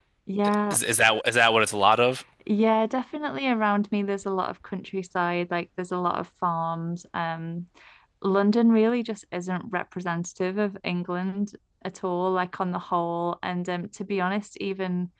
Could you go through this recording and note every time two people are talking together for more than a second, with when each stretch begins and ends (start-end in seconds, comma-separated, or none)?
none